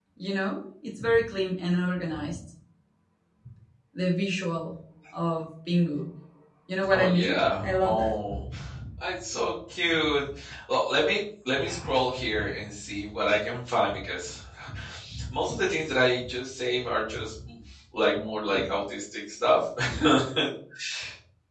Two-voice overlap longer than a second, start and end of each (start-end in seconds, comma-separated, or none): 6.9-8.1